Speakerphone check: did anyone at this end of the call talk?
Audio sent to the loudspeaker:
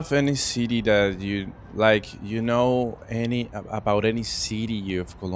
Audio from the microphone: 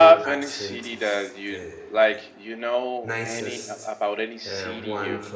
Yes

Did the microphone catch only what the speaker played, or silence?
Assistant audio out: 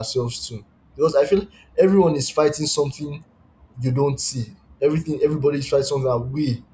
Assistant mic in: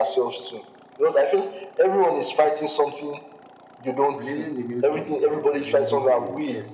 No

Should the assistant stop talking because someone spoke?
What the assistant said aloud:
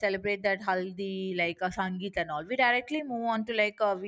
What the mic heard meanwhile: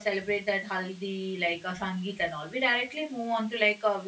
No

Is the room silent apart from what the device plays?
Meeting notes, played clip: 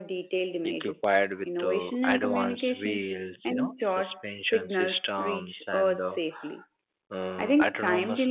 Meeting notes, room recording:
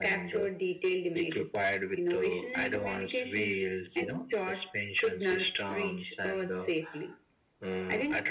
Yes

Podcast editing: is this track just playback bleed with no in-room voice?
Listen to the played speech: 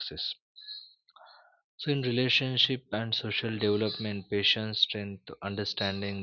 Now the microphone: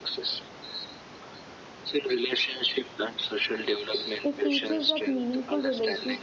No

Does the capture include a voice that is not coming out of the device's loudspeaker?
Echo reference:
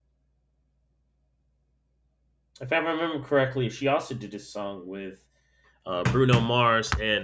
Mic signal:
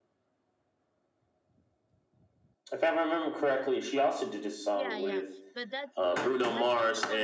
Yes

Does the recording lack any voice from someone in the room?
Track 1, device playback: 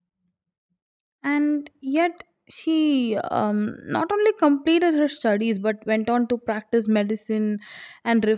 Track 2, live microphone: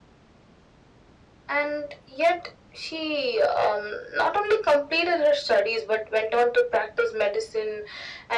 Yes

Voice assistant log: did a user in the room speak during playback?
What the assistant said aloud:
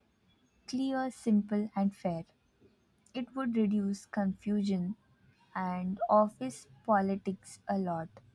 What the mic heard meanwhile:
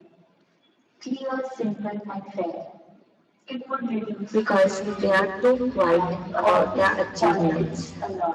Yes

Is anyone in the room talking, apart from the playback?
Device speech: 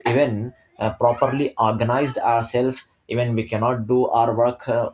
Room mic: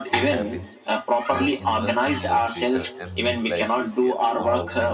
Yes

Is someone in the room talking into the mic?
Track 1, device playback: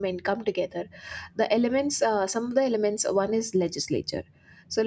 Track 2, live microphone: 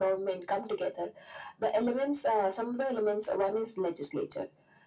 No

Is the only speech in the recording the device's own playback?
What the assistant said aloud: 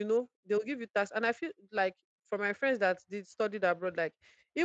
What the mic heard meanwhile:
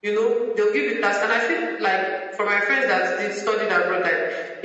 Yes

